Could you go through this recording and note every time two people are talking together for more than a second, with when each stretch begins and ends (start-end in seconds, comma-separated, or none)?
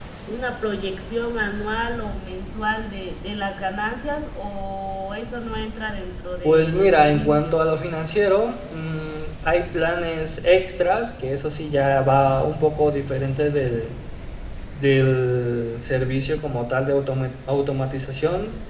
6.4-7.6